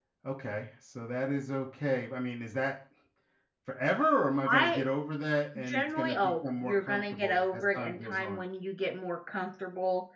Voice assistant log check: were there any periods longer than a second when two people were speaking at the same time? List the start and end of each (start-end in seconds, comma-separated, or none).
5.6-8.4